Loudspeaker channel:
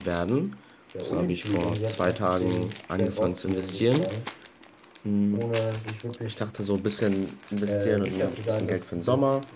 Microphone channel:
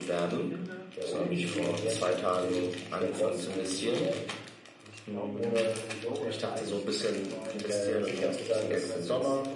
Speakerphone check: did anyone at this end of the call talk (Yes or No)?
Yes